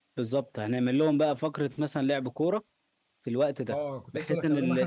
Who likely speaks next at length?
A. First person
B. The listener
B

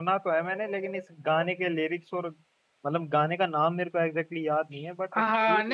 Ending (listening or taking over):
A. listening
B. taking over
B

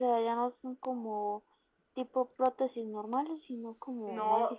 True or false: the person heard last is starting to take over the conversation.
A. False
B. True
B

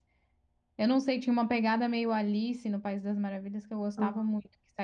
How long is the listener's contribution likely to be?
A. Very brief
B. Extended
A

